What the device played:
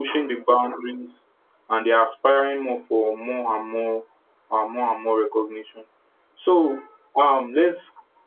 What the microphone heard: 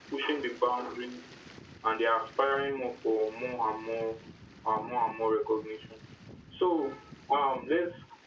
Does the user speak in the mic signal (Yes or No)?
No